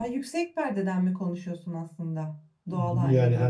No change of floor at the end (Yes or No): No